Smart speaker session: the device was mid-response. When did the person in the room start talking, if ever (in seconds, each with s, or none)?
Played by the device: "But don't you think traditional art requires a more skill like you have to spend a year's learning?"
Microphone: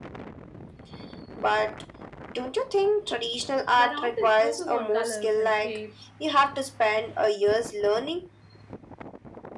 3.7 s